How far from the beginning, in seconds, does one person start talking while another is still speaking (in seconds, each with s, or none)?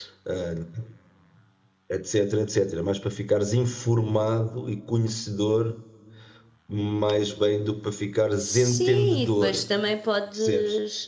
8.4 s